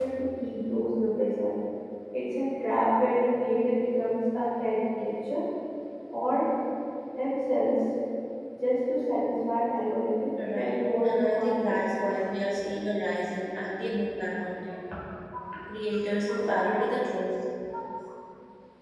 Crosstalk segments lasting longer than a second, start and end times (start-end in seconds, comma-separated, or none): 10.5-11.8